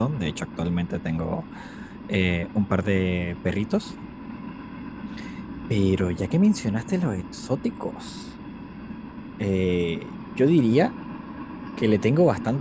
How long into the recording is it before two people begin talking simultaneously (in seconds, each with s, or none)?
none